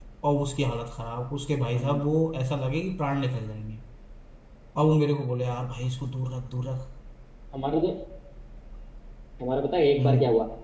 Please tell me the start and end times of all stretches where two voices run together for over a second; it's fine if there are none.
none

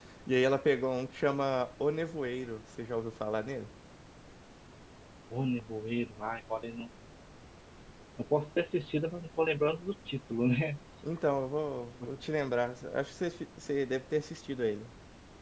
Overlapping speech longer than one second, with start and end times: none

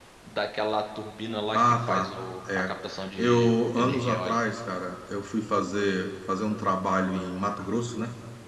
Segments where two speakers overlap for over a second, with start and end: 3.2-4.4

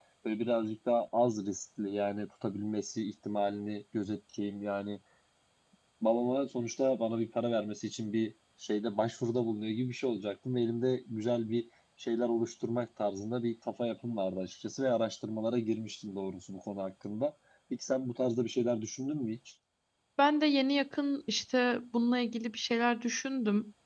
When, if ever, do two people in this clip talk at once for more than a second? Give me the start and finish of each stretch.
none

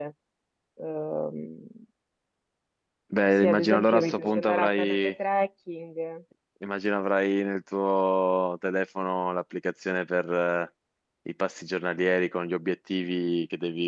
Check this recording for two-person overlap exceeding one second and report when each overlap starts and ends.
3.4-5.1

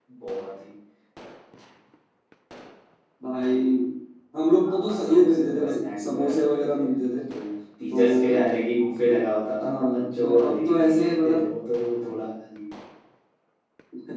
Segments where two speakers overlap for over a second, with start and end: 4.6-6.8, 9.6-11.4

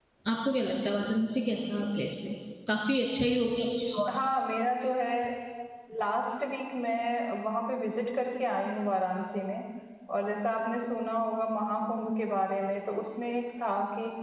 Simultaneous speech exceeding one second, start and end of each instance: none

